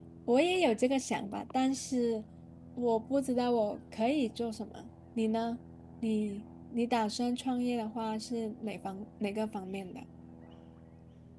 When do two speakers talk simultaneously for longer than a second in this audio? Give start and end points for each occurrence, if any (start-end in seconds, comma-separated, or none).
none